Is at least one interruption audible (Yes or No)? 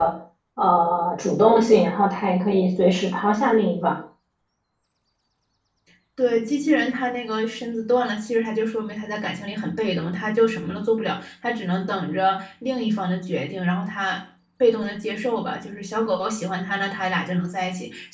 No